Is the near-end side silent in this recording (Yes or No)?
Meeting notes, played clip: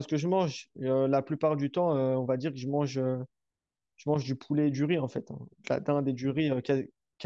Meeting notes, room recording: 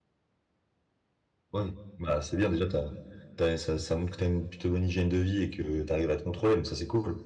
No